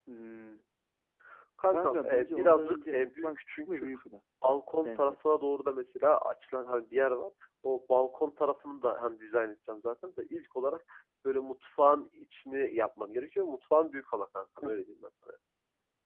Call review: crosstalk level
present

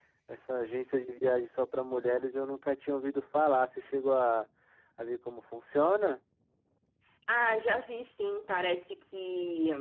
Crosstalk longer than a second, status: none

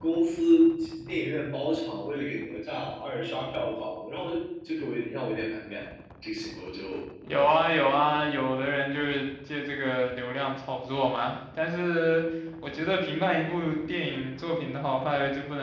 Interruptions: none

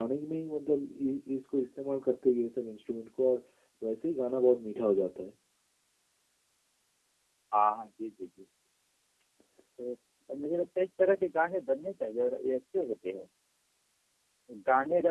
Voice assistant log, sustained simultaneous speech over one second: none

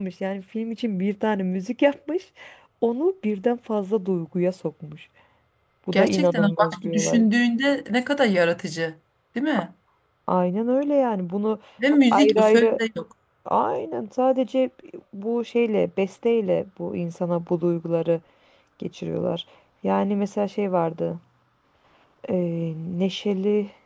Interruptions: present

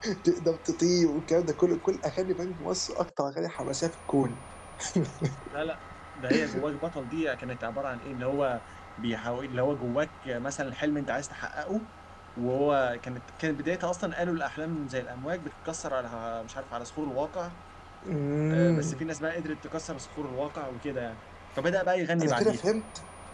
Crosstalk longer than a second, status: none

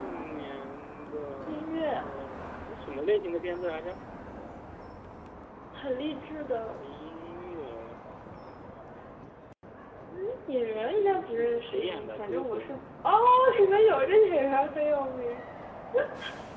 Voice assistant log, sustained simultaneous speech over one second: present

